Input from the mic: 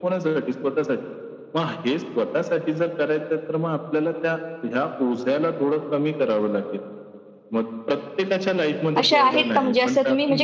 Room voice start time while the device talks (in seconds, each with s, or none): 9.0 s